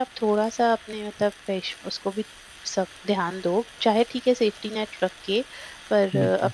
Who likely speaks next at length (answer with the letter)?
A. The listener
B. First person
B